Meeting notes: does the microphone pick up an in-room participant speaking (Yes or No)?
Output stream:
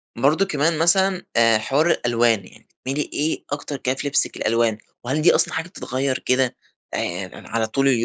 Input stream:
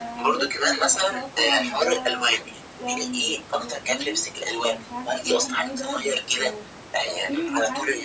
Yes